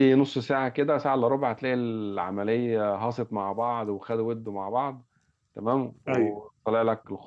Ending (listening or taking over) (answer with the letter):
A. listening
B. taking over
A